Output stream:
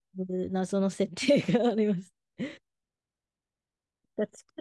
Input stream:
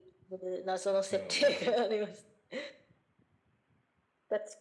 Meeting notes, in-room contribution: present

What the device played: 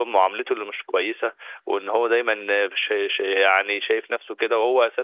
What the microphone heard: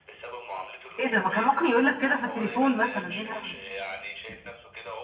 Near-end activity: present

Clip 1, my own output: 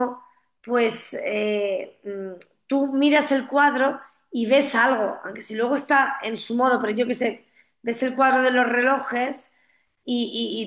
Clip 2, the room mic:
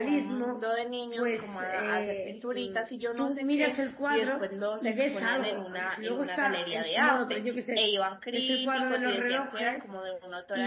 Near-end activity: present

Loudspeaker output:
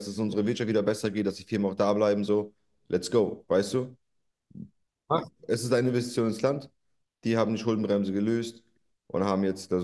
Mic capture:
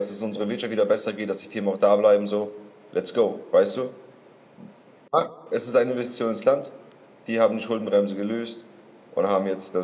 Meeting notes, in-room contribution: none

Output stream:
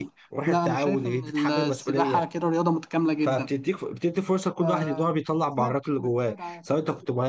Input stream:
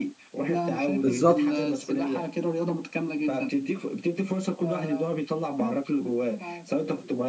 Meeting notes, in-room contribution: present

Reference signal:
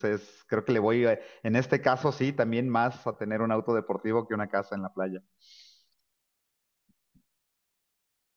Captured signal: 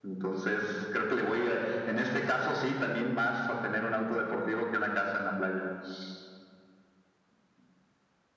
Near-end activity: none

